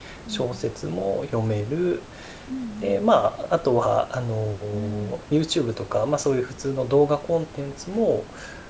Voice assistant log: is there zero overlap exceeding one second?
Yes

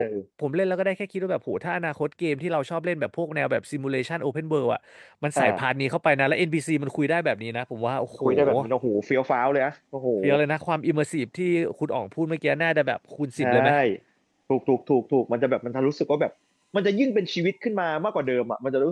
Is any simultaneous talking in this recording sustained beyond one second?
No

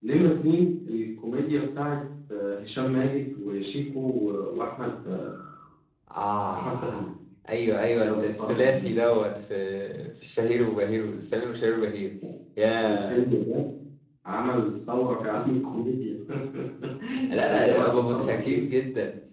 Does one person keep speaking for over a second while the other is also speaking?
Yes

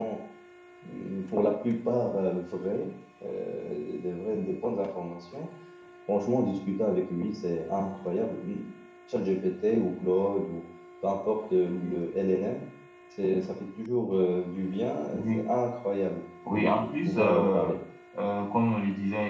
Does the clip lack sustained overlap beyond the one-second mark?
No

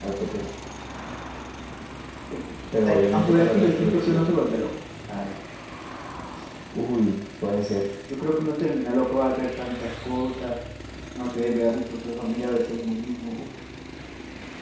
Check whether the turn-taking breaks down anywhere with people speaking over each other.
Yes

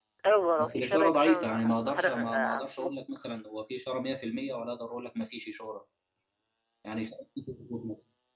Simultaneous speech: Yes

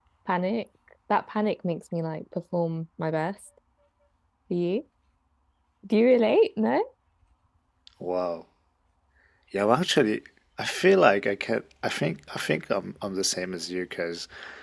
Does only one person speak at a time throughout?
Yes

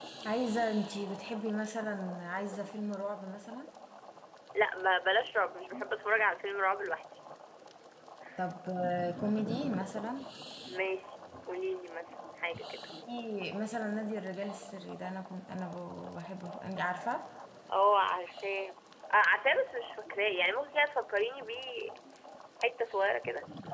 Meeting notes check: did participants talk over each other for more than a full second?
No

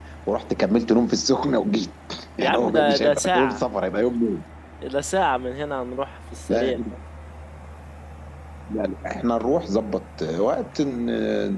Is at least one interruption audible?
Yes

